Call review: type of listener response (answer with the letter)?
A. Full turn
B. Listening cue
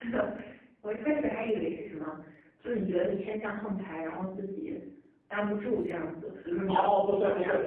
A